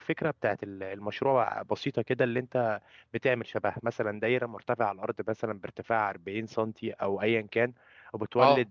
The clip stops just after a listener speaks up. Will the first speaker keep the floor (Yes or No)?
Yes